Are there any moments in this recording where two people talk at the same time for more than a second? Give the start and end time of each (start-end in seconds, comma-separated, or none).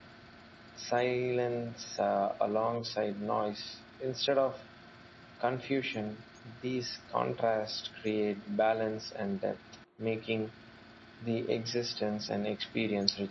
none